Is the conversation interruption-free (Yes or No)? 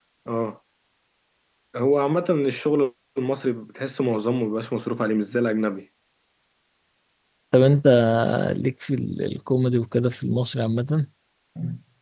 Yes